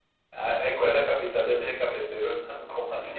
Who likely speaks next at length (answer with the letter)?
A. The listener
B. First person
A